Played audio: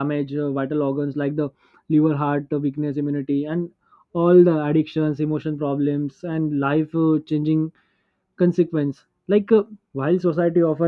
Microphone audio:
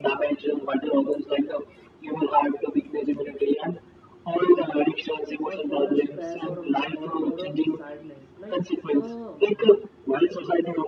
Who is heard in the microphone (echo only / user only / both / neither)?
both